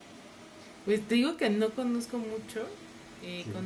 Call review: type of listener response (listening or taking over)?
listening